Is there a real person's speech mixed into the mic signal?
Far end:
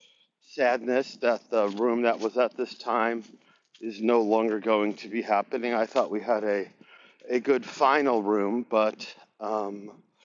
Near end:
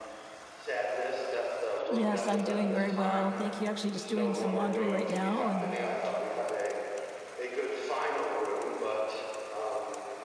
Yes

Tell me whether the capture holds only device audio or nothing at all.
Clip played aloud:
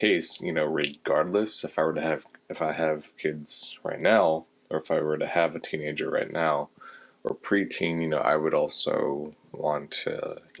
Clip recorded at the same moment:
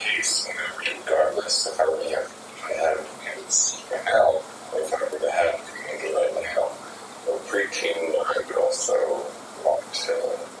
Yes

